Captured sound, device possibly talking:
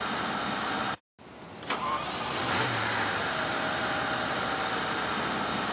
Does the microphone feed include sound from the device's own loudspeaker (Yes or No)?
No